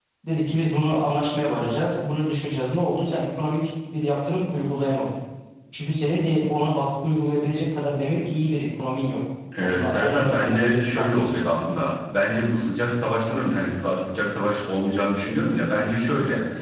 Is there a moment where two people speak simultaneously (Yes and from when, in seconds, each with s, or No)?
Yes, from 9.5 s